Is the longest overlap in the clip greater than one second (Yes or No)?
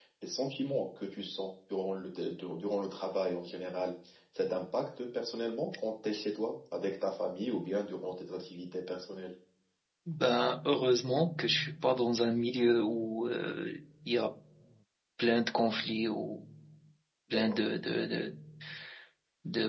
No